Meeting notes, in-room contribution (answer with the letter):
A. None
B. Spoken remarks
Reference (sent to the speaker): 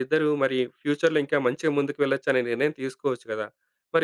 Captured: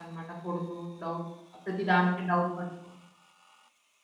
B